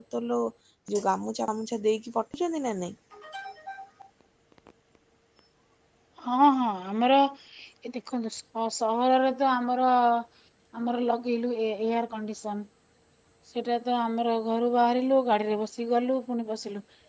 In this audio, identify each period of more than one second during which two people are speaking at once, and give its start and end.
none

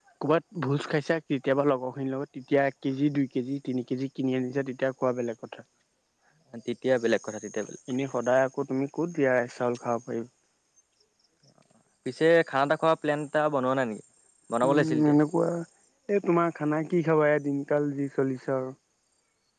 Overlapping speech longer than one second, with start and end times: none

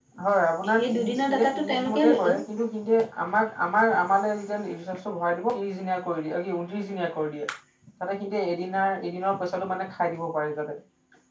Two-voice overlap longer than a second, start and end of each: 0.8-2.4

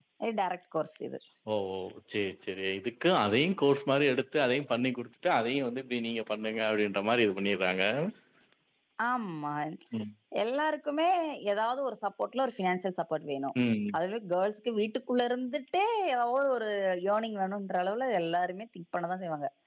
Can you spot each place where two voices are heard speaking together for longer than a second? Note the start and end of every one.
none

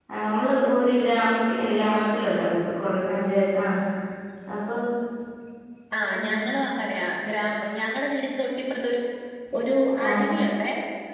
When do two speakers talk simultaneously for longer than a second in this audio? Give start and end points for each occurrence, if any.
none

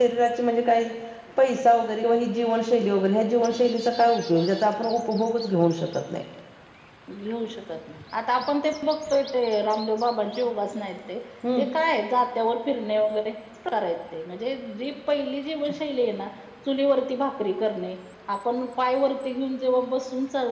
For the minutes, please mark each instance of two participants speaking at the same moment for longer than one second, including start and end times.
none

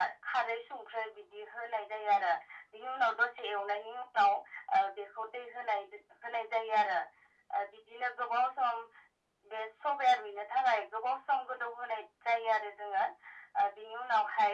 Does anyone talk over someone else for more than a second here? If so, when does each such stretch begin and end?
none

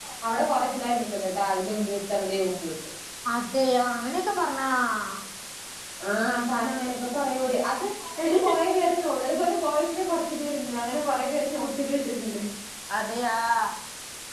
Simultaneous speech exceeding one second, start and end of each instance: none

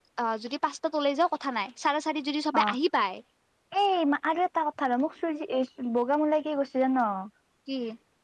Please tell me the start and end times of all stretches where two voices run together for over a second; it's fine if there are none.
none

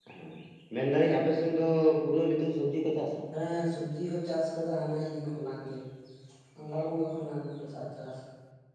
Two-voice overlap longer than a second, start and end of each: none

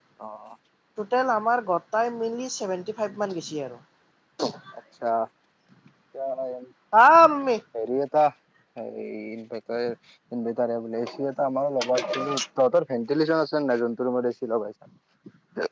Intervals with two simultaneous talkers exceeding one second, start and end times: none

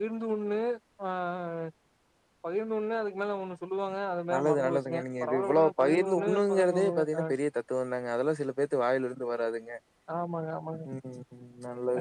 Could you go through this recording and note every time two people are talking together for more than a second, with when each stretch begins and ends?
4.3-7.2

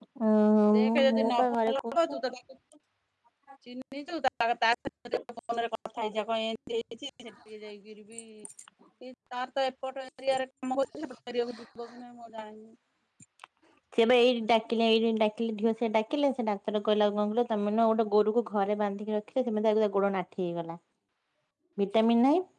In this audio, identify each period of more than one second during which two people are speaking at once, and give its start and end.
0.8-2.1

